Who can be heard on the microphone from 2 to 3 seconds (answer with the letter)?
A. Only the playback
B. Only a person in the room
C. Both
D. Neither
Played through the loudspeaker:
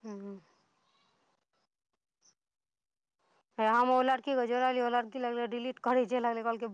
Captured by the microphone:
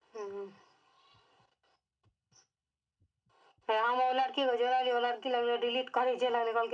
D